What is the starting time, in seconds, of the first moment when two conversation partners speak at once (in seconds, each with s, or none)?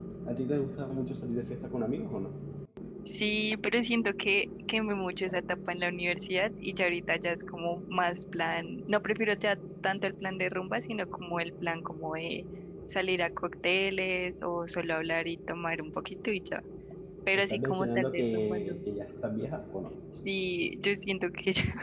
17.3 s